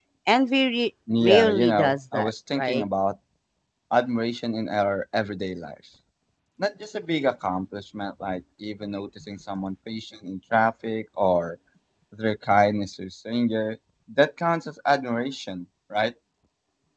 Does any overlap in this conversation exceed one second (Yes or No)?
Yes